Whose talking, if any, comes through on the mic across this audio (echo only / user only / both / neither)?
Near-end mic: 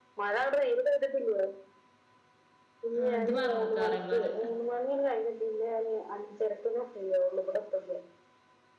both